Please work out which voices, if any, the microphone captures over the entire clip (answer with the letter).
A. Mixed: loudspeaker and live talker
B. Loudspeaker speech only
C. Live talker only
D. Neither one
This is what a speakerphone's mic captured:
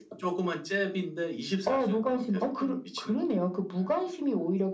B